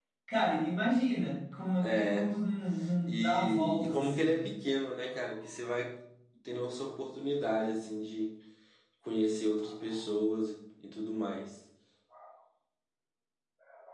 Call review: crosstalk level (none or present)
present